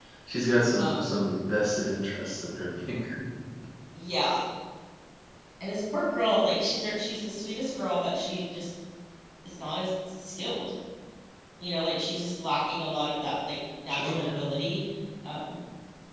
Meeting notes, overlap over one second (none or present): none